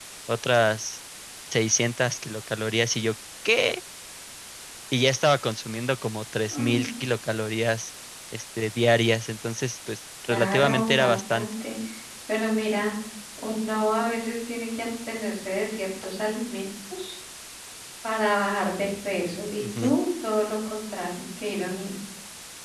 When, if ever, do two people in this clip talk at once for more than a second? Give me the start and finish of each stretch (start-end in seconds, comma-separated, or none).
10.3-11.5